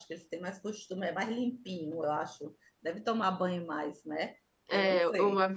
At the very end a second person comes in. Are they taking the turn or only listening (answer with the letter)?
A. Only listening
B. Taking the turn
B